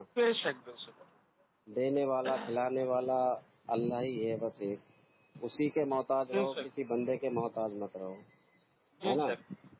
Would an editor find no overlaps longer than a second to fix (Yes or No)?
Yes